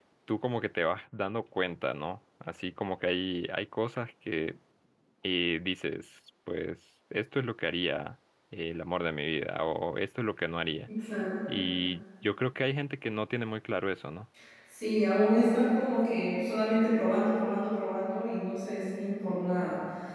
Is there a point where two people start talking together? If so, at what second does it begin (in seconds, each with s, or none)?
none